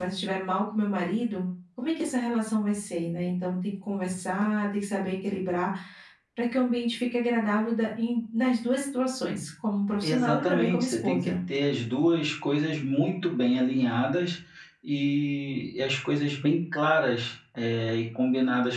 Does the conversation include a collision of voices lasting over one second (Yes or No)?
Yes